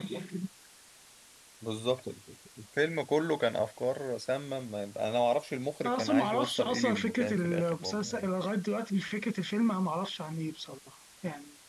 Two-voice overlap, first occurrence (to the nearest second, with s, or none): 6 s